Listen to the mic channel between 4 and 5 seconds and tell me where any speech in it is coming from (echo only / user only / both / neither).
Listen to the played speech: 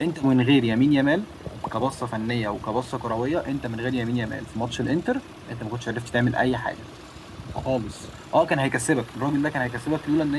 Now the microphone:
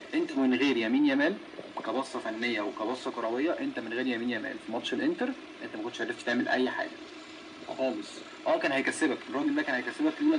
echo only